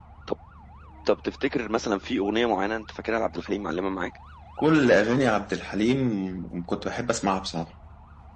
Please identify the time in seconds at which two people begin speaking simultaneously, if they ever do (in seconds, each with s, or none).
none